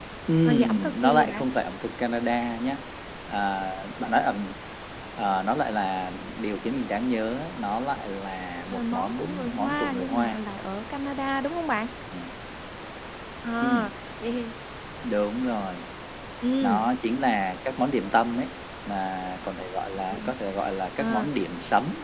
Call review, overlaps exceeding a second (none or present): present